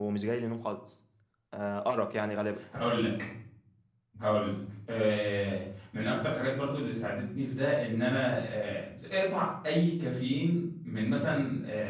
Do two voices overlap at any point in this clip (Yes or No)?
No